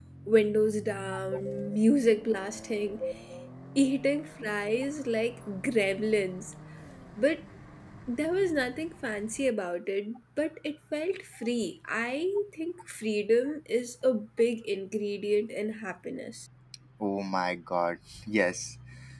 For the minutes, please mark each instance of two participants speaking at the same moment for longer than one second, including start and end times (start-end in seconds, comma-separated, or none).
none